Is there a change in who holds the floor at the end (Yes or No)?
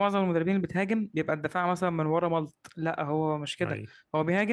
No